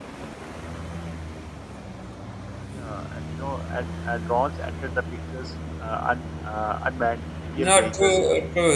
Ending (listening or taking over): taking over